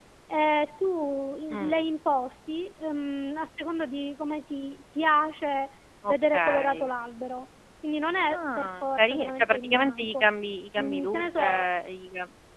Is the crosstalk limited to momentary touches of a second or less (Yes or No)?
No